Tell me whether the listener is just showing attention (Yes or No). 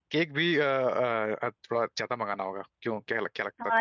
No